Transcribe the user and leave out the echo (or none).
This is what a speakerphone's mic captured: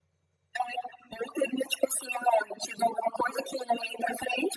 none